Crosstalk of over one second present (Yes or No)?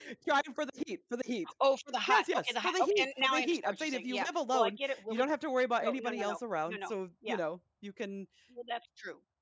Yes